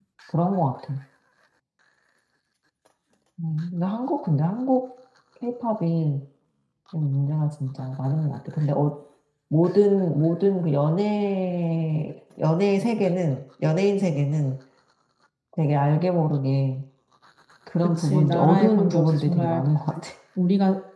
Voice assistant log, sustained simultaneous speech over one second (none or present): present